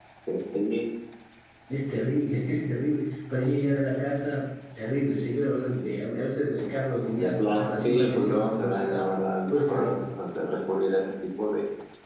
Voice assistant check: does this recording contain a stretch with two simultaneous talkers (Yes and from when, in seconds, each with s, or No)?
Yes, from 7.2 s